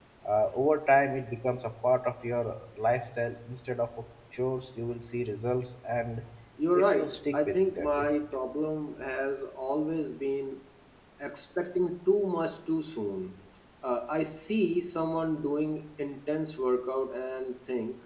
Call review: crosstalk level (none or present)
present